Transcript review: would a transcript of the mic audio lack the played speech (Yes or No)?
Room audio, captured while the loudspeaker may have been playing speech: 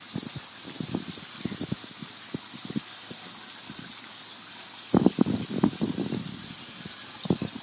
Yes